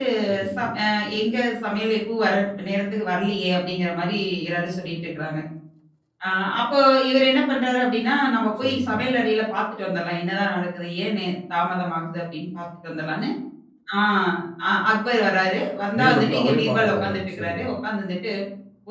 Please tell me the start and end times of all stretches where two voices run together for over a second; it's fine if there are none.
16.0-17.6

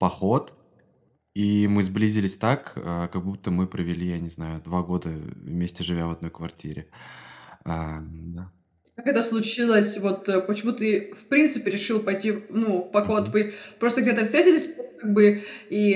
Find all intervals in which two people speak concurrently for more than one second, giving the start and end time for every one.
none

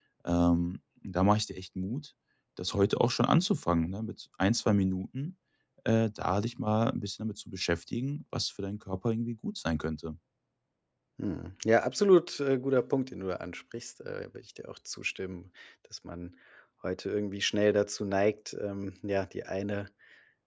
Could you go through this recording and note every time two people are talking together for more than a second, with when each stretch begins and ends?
none

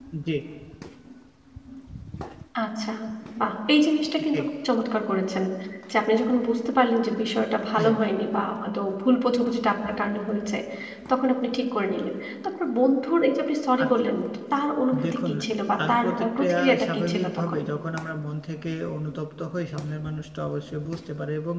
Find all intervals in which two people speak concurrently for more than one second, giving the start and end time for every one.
15.8-17.6

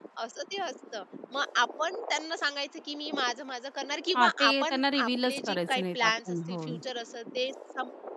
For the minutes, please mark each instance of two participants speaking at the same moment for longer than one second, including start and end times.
4.2-6.7

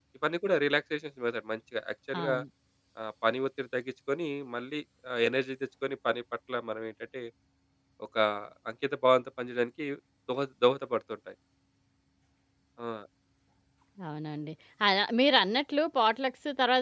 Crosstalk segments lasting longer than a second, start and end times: none

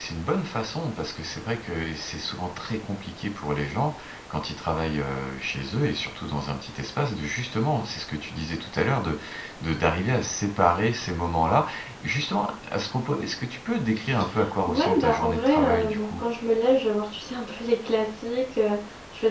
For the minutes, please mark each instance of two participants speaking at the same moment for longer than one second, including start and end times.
14.7-16.2

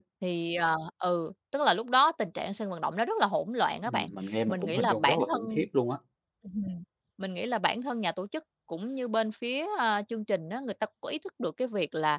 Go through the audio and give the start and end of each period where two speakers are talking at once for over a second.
4.5-5.7

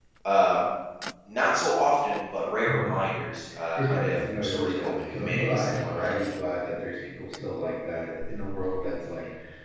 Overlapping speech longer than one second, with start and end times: 3.8-6.1

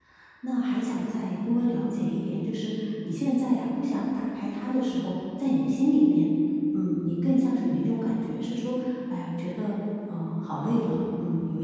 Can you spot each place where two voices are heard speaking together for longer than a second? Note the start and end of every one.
none

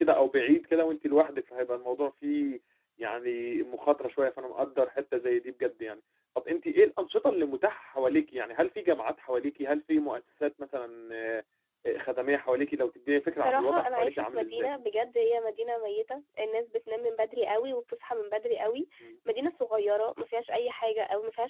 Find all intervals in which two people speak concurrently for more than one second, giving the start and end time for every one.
13.3-14.7

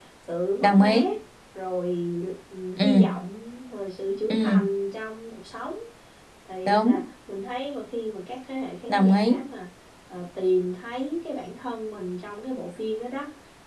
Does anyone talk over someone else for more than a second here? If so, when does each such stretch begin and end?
none

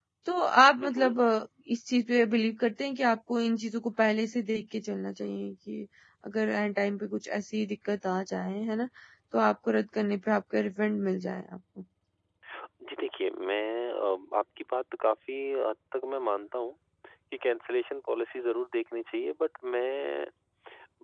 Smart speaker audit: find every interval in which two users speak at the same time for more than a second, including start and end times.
none

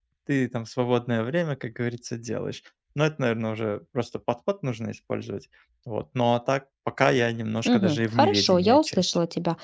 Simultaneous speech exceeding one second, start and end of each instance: 7.7-9.1

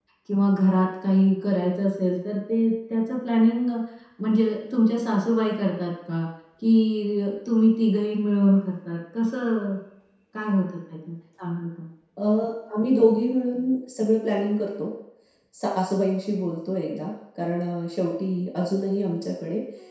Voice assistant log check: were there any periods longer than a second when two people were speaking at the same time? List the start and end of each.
none

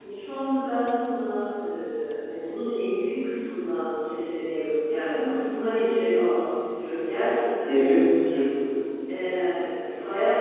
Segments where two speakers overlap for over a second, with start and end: none

